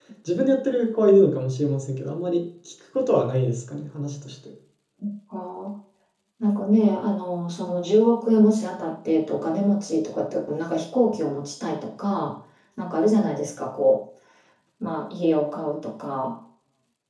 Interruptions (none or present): none